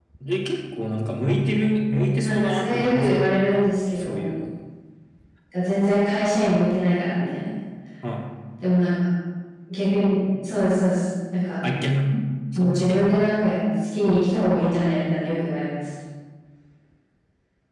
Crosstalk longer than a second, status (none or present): present